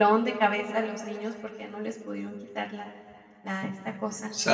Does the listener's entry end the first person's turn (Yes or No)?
Yes